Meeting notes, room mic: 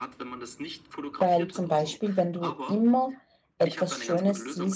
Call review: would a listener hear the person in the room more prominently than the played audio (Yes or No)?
Yes